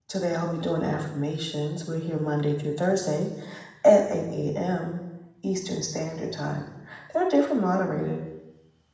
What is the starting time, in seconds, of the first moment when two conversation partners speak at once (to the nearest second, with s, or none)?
none